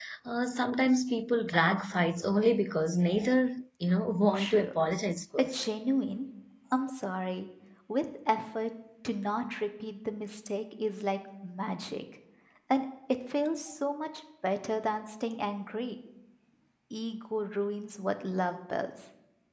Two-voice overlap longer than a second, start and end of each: none

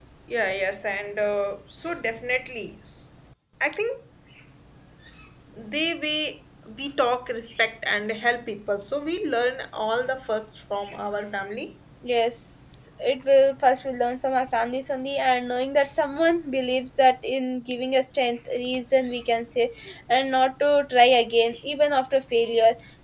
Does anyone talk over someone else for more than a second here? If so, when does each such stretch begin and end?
none

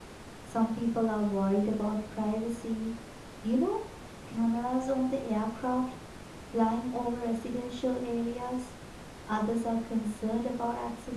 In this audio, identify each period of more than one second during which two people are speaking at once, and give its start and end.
none

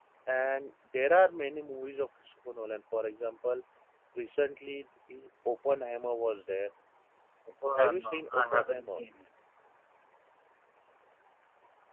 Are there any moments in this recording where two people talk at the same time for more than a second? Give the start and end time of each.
7.8-9.0

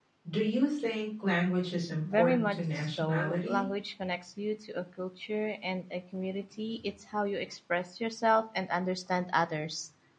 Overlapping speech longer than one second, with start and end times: 2.1-3.6

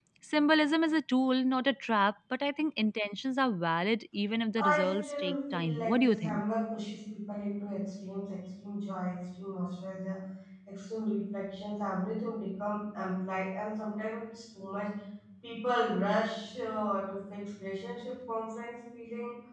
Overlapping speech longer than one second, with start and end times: 4.6-6.4

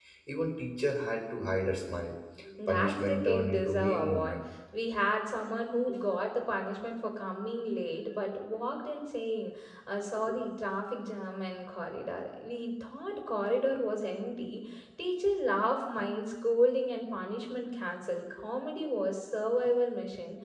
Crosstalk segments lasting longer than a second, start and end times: 2.7-4.4

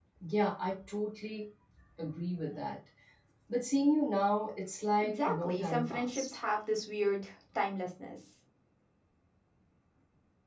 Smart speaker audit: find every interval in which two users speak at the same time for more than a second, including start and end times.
5.0-6.3

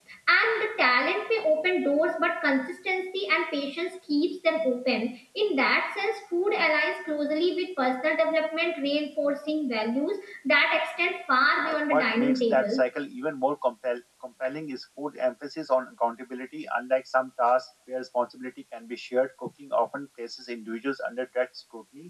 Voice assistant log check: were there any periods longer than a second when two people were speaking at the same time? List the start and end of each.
11.6-12.8

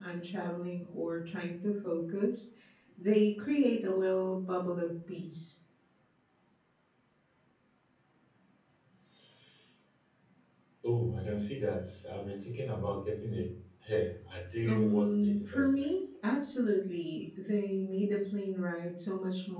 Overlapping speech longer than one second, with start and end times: 14.6-15.9

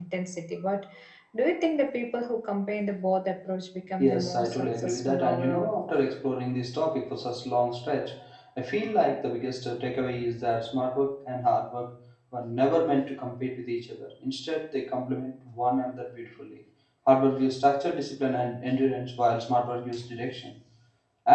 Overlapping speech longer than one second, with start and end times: 4.0-5.8

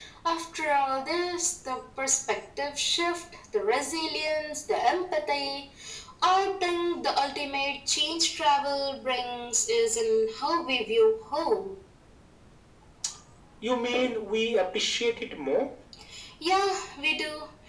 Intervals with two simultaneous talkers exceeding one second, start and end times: none

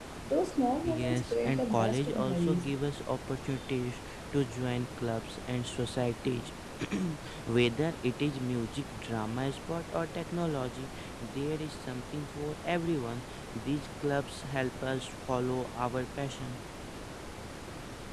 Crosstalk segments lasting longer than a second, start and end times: 0.8-2.7

